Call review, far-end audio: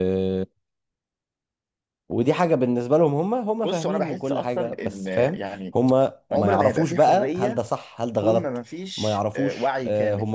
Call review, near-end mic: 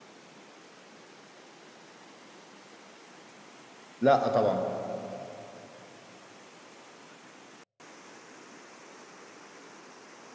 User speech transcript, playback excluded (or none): لا آه طبعا